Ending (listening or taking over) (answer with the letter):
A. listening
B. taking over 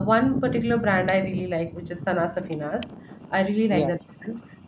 A